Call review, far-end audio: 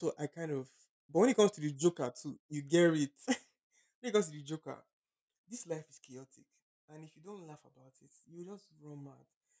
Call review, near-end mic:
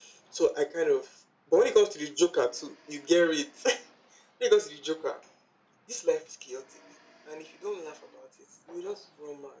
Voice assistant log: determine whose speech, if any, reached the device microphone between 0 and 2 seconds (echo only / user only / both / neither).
echo only